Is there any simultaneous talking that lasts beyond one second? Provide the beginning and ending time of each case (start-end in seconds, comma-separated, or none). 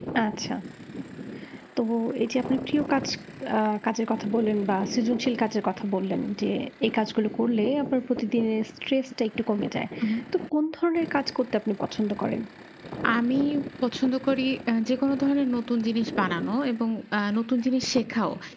none